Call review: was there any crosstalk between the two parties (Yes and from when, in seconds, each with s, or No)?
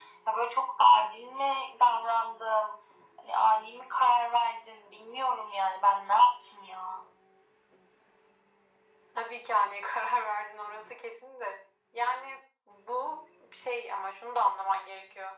No